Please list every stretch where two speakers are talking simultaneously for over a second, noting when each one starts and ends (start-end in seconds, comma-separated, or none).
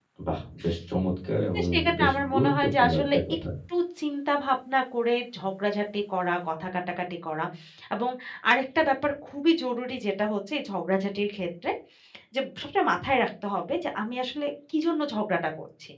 1.6-3.4